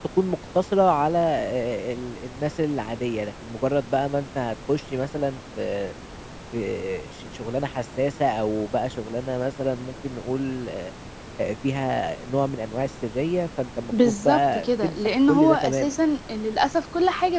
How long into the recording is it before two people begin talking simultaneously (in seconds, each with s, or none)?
13.9 s